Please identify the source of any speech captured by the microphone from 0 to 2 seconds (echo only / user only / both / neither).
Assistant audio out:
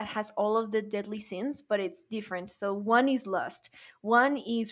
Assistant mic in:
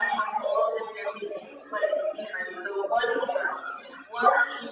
echo only